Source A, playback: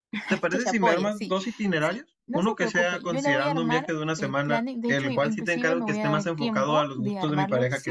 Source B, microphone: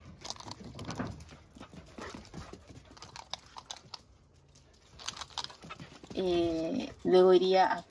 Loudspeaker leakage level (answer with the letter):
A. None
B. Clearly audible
A